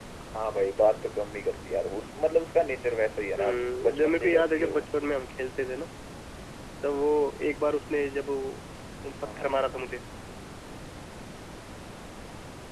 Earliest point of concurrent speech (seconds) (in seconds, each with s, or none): 3.4 s